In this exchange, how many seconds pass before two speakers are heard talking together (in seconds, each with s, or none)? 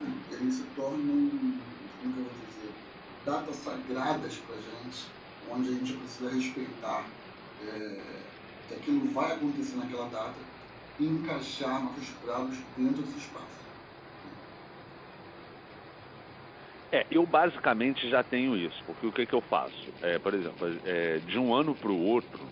none